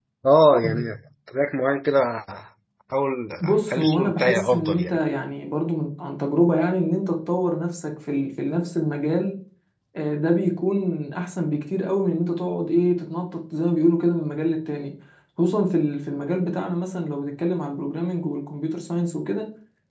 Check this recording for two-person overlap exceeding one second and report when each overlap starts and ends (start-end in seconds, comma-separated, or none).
3.4-5.0